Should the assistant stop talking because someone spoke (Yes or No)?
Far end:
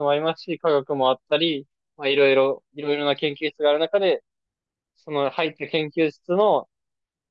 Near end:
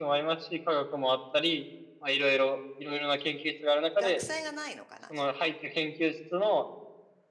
Yes